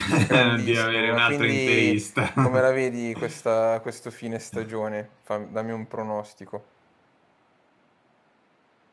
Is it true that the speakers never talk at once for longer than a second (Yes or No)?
No